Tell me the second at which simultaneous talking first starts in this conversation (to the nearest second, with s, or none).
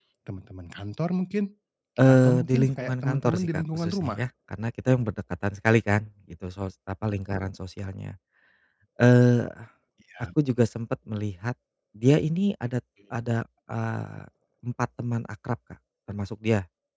2 s